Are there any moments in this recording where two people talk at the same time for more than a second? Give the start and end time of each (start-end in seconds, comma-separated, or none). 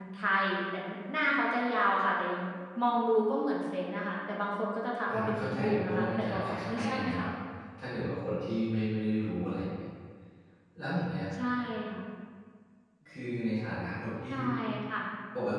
5.1-7.3